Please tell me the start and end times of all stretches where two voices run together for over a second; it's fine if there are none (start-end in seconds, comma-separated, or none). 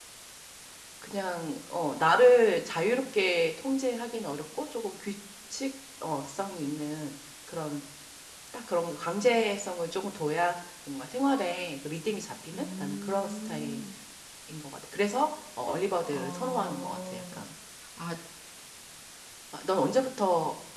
12.5-13.8, 16.1-17.3